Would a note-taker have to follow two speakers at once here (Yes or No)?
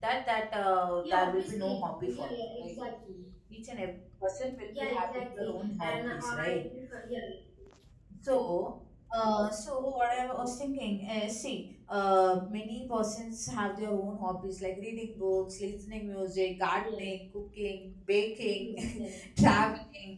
Yes